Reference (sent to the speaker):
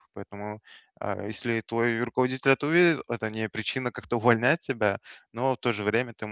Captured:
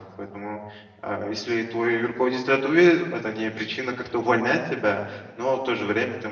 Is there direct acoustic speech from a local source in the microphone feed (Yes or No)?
No